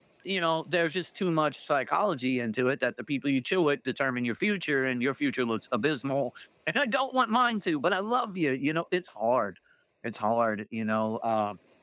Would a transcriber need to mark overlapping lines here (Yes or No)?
No